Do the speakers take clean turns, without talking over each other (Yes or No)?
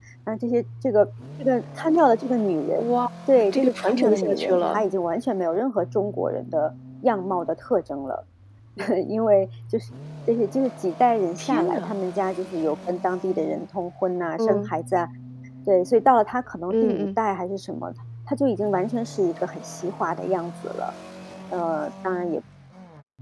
No